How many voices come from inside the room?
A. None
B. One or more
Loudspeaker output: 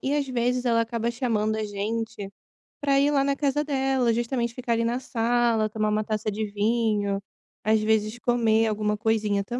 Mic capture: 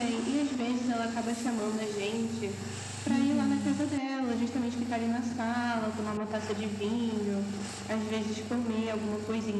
B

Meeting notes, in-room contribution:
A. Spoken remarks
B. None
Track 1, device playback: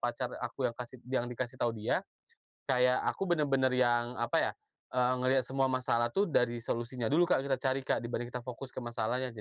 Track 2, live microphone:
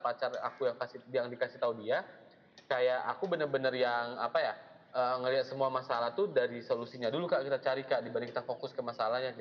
B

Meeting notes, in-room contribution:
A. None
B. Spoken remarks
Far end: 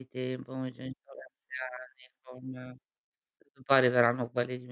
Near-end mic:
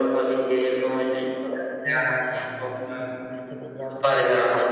B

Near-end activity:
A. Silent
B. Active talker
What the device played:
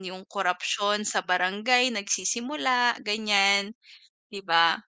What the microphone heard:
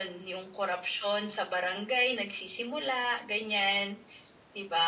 A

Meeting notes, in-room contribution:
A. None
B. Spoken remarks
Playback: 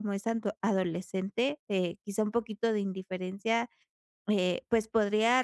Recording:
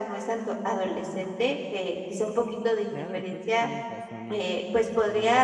B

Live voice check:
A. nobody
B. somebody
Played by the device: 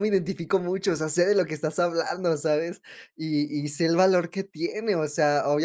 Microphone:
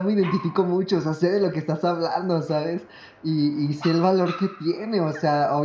A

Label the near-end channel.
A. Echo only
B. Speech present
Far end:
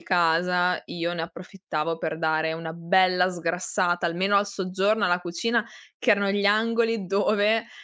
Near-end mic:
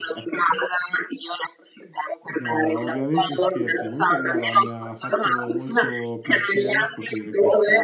B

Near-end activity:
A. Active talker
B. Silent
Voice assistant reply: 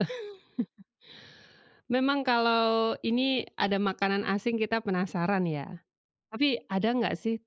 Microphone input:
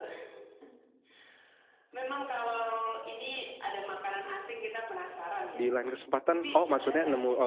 A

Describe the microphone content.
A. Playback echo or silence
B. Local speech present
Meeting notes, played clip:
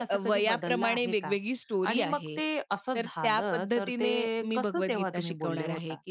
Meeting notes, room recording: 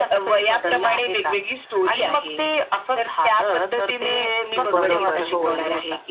B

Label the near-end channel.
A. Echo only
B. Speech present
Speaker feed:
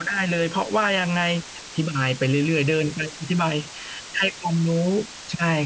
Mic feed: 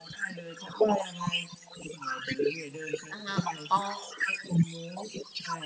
B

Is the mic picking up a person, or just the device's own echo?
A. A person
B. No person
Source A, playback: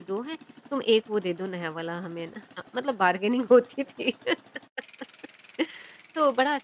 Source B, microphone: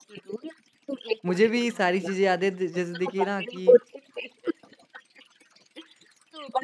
A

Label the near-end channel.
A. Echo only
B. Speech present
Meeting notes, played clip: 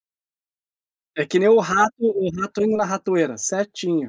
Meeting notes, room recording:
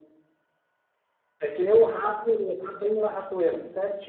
A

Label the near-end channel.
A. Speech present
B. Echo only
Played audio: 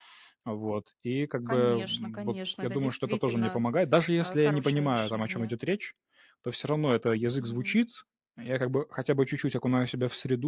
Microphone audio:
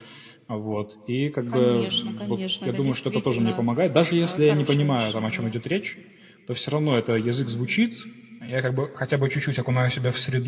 B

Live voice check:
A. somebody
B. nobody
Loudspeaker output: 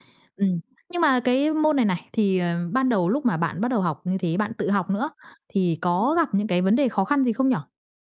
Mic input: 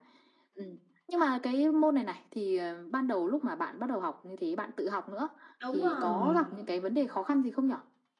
A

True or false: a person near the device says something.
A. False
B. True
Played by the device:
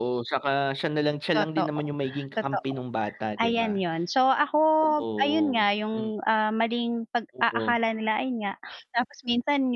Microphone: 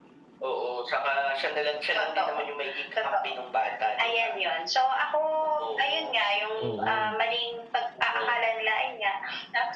B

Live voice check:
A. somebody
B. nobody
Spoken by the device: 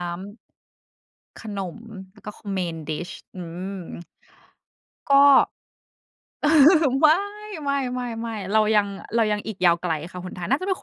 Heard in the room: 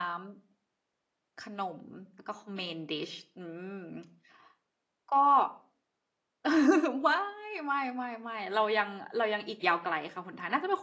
B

